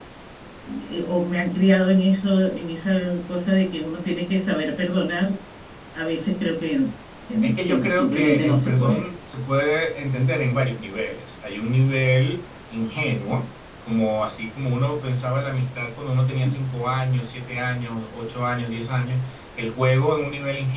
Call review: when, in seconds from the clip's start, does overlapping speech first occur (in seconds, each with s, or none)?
7.4 s